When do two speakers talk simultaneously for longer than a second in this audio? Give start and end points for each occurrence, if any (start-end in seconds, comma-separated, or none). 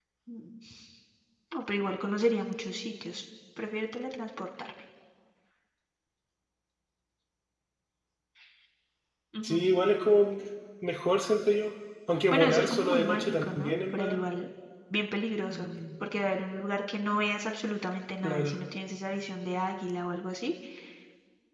12.3-14.3